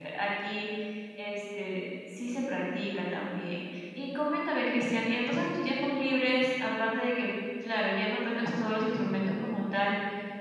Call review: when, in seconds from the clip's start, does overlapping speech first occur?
none

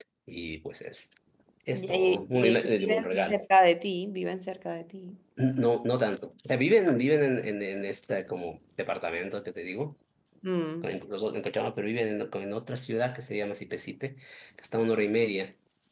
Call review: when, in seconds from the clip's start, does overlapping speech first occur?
1.7 s

